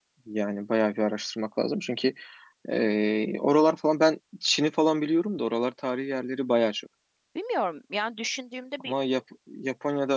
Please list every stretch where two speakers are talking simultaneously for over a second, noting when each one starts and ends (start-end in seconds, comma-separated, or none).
none